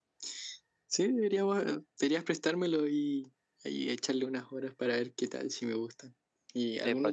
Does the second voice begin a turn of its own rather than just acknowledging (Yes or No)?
Yes